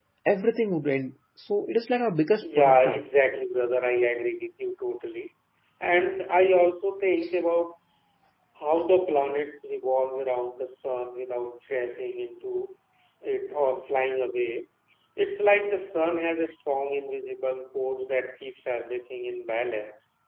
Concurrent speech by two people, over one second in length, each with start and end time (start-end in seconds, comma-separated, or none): none